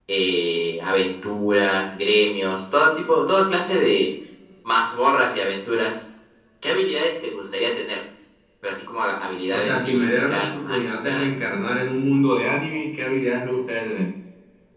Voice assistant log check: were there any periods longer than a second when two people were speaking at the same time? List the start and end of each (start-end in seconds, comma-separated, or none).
9.5-11.3